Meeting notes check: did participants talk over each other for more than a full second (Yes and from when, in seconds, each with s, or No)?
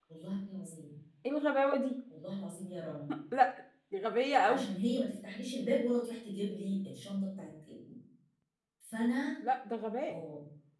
No